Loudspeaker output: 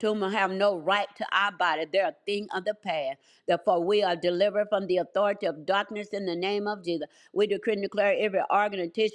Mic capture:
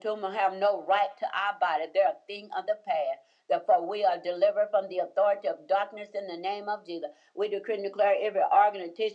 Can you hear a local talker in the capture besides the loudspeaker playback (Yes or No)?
No